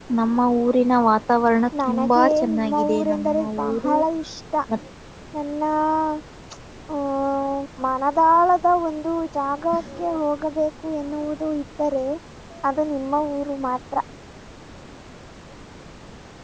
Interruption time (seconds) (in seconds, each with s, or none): 1.8 s